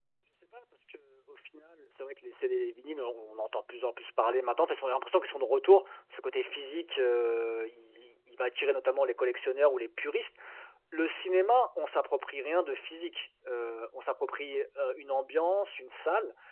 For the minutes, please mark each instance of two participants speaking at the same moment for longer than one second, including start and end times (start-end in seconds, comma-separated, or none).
none